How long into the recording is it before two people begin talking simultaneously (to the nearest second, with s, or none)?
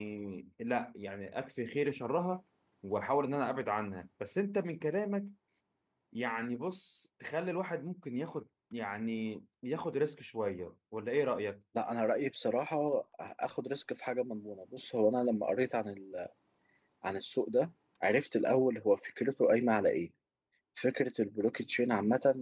none